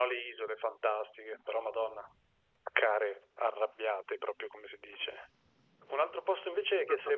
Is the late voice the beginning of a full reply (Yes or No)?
No